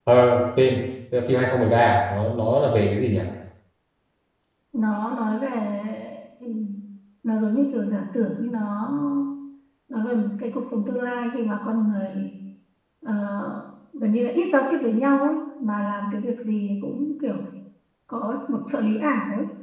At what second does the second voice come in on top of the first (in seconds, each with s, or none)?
none